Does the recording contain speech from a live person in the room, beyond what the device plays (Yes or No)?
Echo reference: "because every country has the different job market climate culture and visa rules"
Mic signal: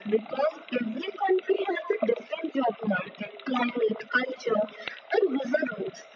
No